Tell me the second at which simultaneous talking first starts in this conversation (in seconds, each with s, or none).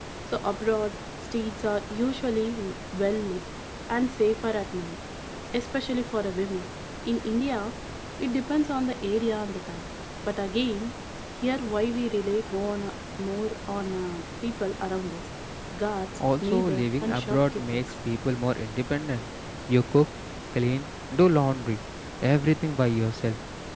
16.4 s